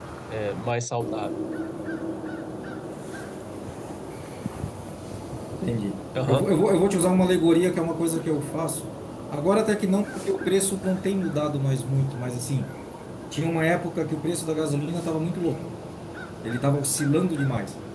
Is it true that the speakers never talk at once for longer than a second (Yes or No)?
Yes